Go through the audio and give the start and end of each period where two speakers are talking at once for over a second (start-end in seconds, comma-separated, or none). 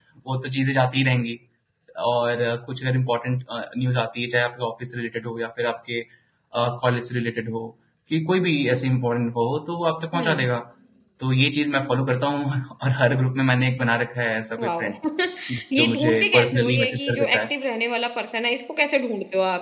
15.8-17.4